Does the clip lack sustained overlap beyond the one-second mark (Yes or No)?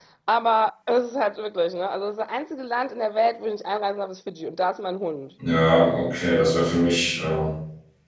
Yes